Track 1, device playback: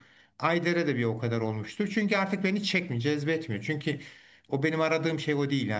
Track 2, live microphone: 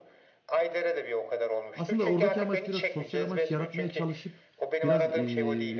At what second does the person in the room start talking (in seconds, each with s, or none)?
1.7 s